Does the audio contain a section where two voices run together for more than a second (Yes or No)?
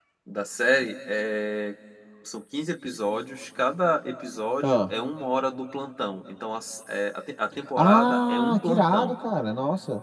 Yes